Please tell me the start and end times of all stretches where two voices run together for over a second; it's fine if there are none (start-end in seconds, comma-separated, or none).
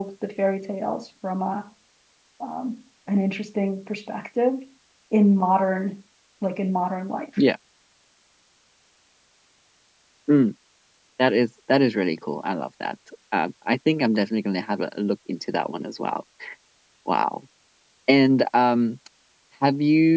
none